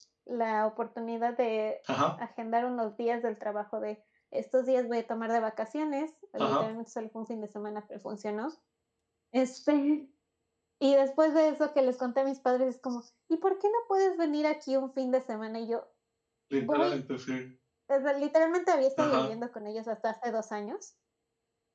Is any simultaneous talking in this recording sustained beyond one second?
No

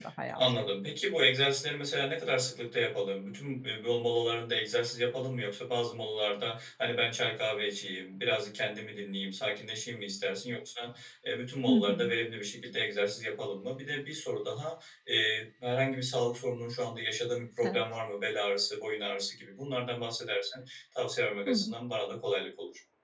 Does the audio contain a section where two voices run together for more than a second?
No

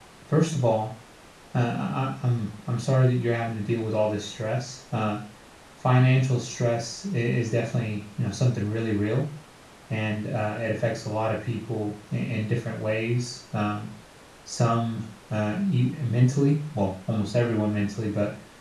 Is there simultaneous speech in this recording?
No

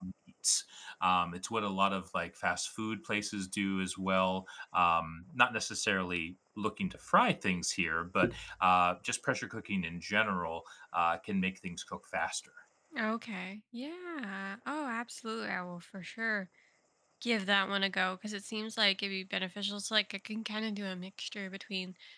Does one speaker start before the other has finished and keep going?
No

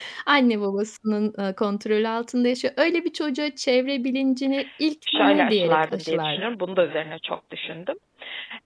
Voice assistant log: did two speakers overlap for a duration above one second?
Yes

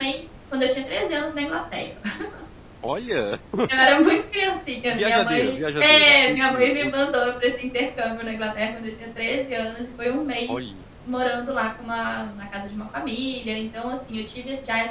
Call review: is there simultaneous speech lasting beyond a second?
Yes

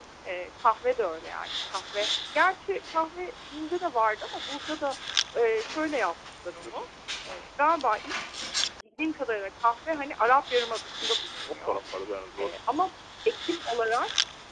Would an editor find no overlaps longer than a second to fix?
Yes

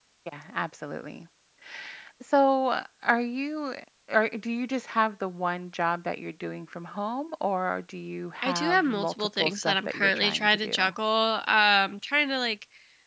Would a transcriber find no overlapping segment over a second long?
No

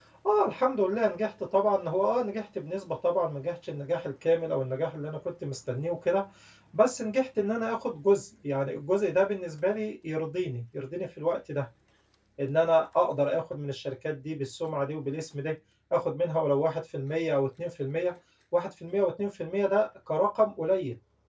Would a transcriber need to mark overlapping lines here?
No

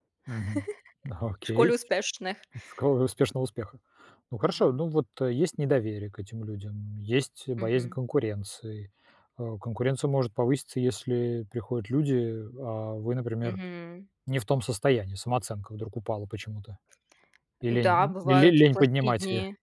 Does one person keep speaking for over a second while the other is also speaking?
Yes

